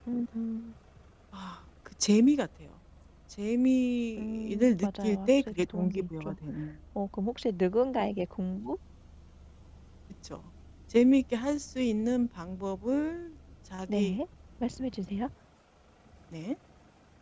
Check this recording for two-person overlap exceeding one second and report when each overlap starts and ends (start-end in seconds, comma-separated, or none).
4.2-6.3